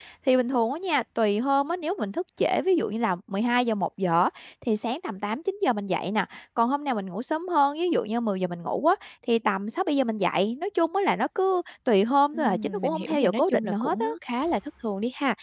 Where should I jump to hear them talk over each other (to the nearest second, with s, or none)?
12 s